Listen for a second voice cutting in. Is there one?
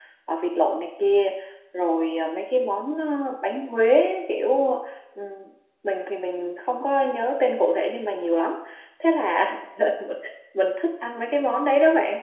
No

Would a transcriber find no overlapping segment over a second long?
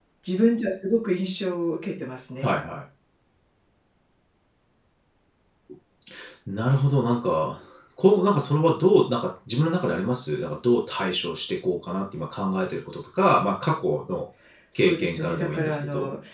No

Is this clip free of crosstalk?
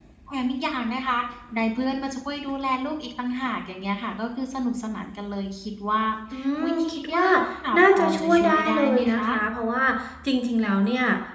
No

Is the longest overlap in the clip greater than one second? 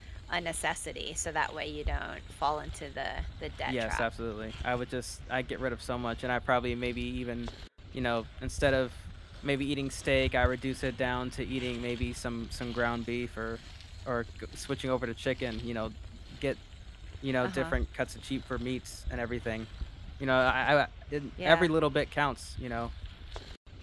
No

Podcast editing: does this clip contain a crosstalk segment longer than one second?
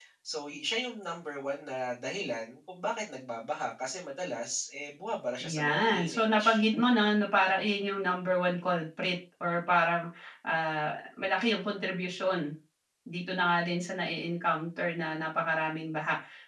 Yes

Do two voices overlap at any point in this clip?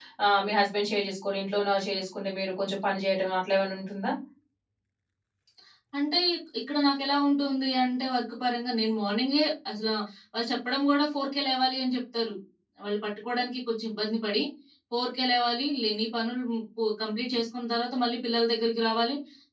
No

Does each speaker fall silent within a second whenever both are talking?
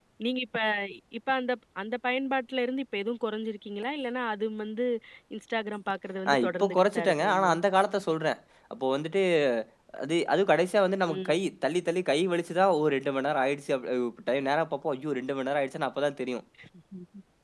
No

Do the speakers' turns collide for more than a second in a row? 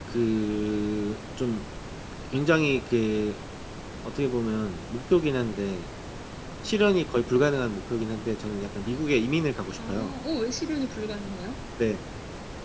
No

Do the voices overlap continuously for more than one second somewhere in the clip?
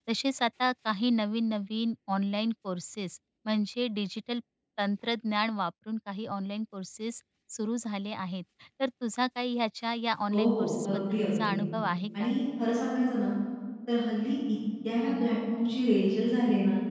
Yes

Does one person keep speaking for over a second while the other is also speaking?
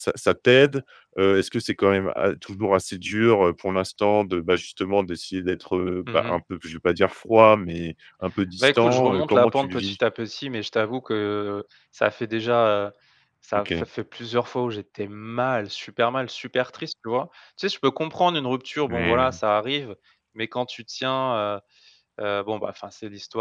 Yes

